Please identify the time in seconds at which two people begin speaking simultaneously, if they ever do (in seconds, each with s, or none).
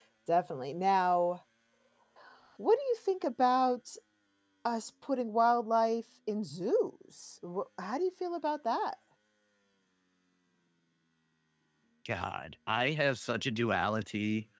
none